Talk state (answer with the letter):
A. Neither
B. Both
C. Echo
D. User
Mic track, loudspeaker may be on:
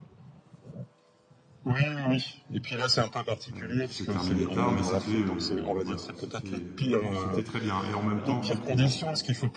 B